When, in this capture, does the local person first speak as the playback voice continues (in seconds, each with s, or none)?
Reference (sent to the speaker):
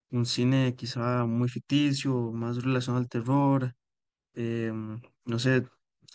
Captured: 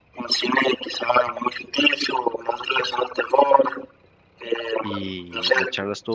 4.8 s